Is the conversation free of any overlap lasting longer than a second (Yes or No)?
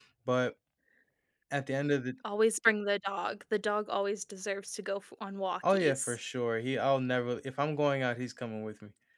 Yes